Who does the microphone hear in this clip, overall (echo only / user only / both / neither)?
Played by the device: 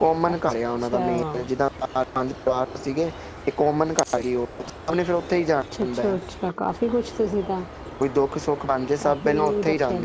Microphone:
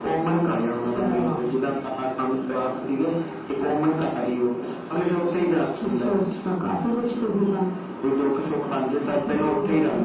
echo only